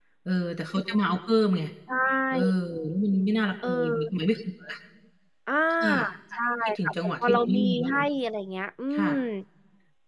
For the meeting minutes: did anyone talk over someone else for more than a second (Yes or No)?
Yes